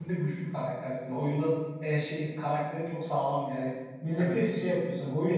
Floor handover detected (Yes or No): No